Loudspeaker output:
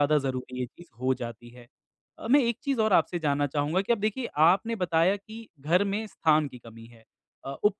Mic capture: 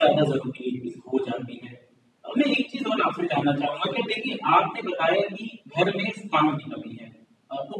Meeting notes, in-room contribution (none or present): none